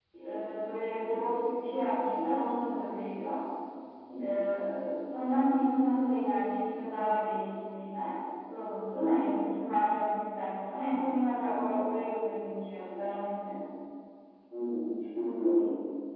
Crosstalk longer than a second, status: none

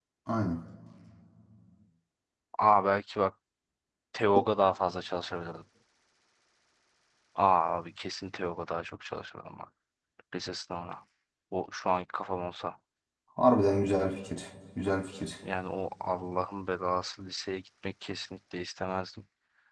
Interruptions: none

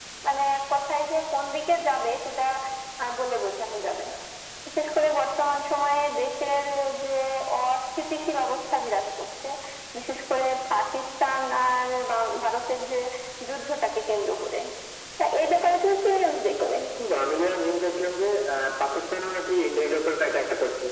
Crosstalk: none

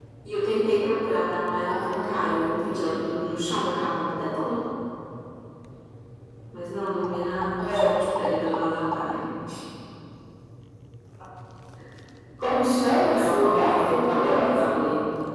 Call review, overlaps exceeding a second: present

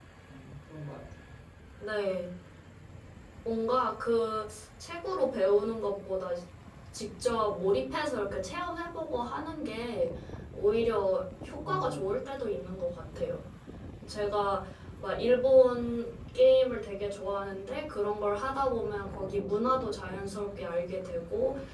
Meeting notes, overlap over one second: none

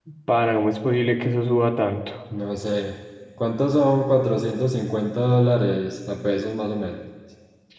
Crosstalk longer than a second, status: none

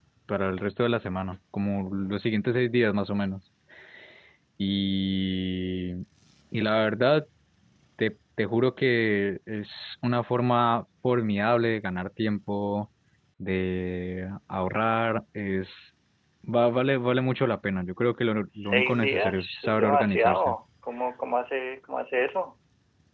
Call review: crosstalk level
present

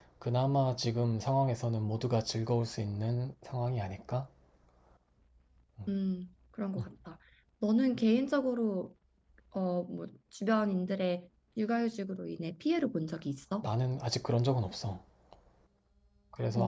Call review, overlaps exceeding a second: none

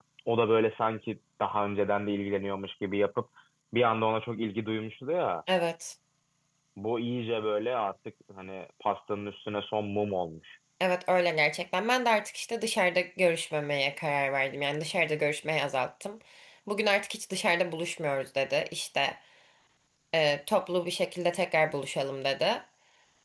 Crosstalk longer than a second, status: none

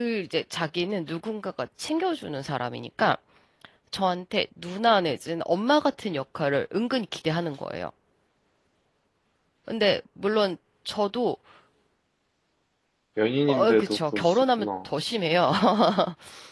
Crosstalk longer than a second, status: present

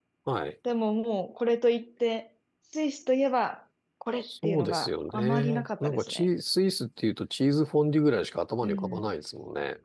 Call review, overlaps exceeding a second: present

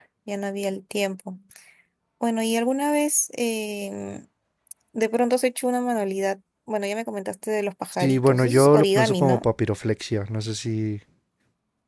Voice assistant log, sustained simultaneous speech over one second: present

